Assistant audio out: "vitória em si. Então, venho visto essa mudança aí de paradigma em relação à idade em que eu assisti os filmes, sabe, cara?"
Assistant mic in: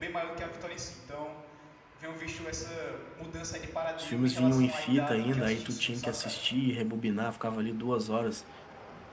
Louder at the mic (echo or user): user